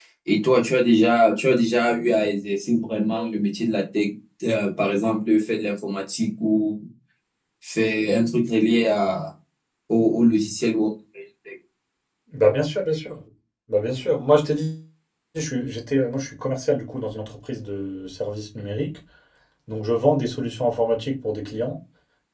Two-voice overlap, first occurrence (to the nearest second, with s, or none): none